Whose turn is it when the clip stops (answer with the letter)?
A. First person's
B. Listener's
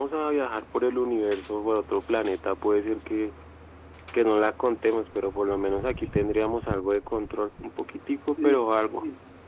B